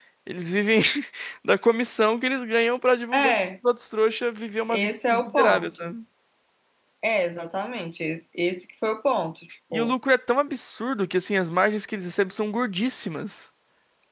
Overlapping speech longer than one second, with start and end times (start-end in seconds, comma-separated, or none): 4.7-5.9